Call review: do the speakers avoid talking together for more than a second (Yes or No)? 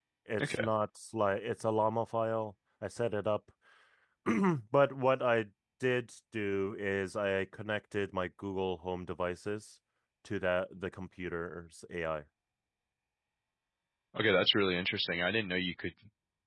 Yes